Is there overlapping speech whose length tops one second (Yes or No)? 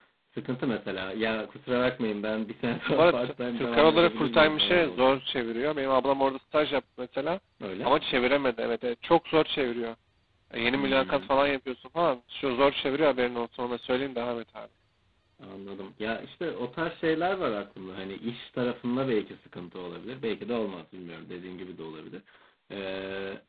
Yes